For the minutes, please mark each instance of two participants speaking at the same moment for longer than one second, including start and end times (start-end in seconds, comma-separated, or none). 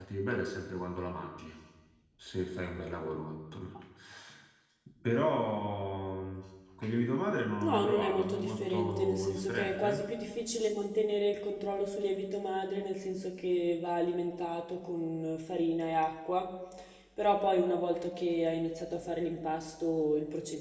7.6-10.0